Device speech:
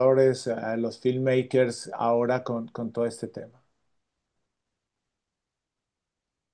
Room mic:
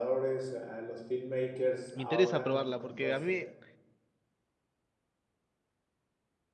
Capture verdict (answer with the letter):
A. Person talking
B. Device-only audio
A